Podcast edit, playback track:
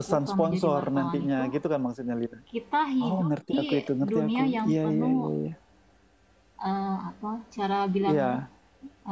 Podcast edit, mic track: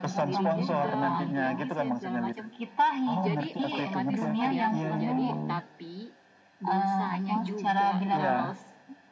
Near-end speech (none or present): present